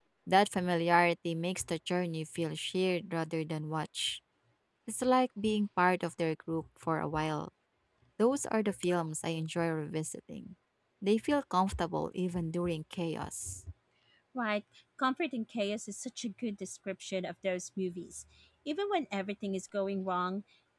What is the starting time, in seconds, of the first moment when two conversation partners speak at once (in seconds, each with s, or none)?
none